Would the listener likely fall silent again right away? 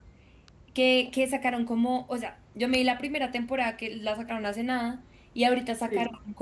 Yes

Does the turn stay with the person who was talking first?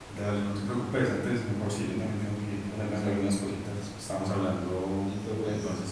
No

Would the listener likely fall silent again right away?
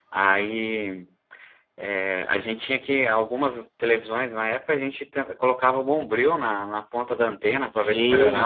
No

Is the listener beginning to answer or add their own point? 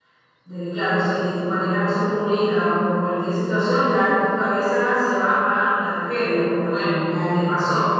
Yes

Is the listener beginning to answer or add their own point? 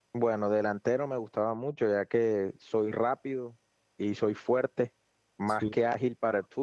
No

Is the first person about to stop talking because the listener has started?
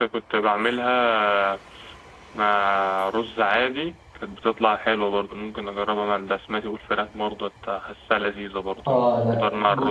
Yes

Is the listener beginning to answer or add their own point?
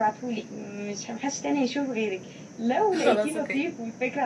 No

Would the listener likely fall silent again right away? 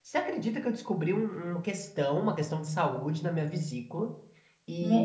Yes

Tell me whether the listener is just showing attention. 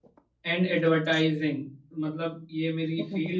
Yes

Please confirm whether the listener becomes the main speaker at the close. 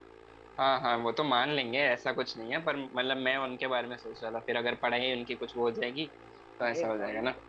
Yes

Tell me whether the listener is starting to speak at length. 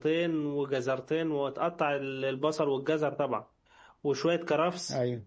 No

